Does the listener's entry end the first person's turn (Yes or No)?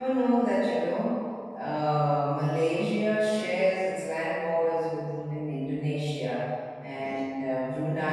No